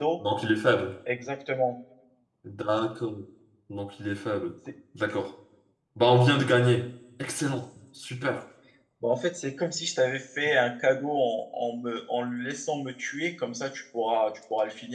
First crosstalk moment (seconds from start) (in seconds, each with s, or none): none